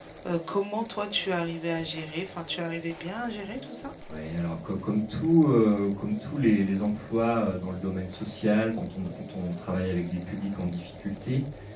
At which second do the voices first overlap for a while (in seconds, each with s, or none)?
none